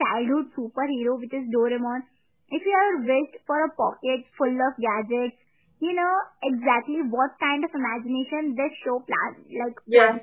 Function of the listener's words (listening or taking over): taking over